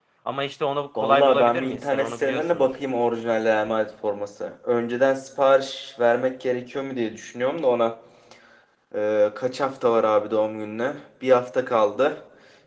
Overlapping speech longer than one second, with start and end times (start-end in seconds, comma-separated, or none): 1.0-2.7